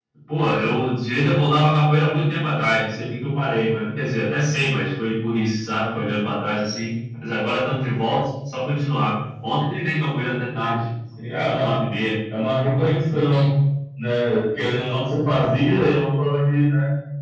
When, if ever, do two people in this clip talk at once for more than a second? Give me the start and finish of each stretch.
none

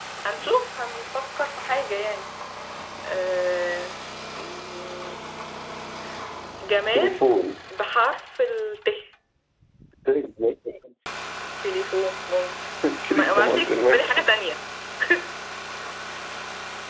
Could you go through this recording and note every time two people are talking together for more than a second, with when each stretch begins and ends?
13.1-14.3

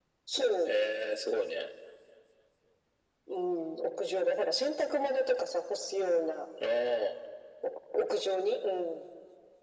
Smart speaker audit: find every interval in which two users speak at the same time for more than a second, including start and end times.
none

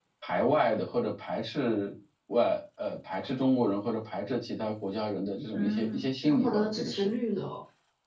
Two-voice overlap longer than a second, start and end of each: 5.5-7.1

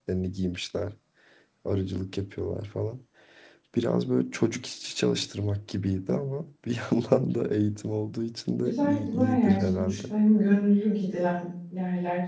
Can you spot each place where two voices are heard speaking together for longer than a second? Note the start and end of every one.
8.6-10.0

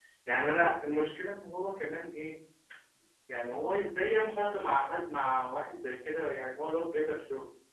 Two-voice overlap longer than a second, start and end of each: none

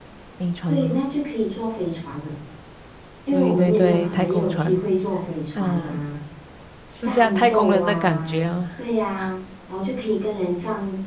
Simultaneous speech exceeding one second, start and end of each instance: 3.3-4.8, 7.0-8.4

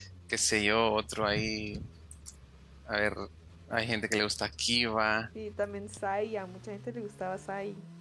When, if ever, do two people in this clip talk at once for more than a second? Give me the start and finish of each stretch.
none

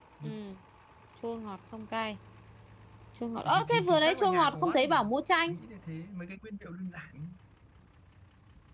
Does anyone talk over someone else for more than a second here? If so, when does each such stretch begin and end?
3.4-5.0

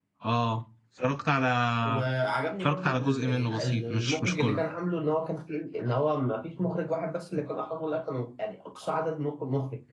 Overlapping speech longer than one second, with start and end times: 2.6-4.6

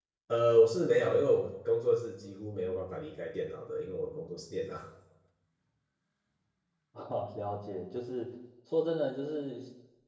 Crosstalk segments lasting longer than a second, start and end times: none

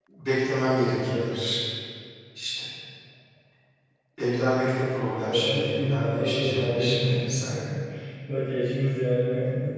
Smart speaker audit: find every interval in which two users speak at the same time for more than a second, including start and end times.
5.2-7.5

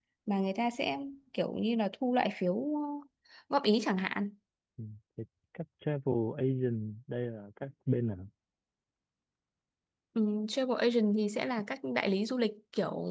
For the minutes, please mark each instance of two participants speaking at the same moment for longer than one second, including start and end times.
none

